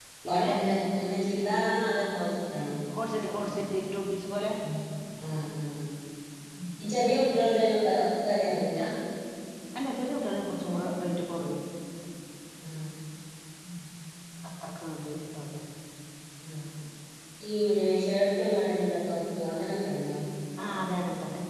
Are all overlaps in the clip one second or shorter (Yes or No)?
Yes